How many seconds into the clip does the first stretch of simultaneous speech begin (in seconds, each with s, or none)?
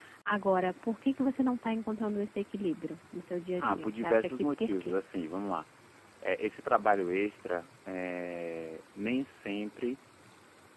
3.6 s